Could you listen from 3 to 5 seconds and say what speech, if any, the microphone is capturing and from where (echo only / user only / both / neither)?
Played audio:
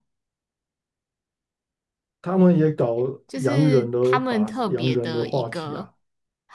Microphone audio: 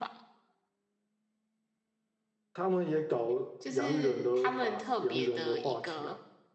echo only